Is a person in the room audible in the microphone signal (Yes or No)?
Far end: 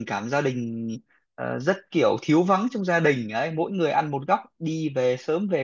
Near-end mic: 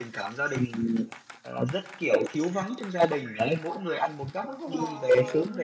Yes